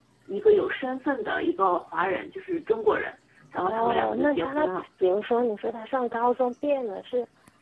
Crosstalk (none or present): present